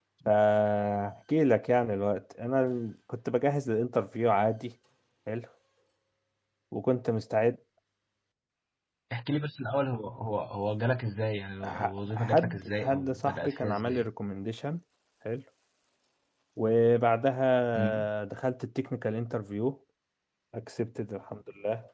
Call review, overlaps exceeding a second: present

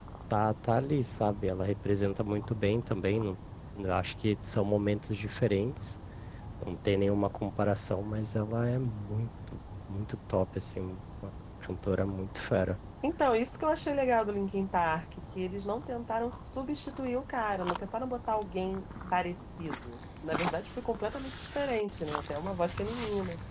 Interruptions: none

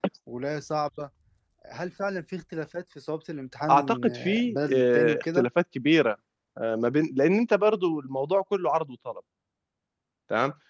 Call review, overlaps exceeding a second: present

